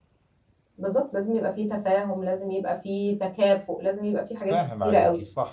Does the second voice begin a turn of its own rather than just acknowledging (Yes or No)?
Yes